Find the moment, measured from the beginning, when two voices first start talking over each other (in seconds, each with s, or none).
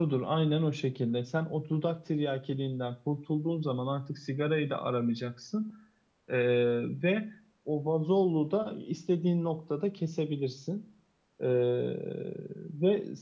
none